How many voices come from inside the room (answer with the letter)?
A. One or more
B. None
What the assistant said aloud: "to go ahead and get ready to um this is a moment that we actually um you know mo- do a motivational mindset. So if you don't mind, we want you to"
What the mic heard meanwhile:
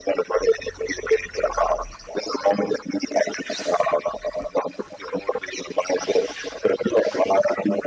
B